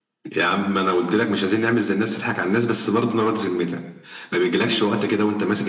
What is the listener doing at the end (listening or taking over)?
listening